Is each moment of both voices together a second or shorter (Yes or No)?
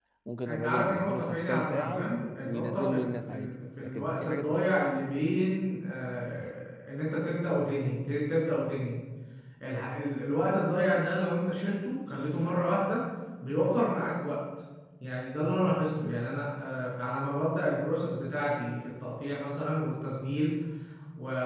No